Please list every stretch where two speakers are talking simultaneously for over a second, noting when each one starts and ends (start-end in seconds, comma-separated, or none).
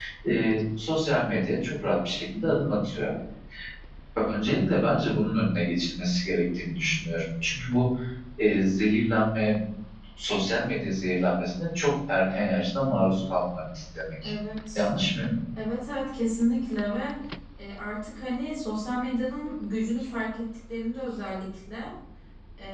none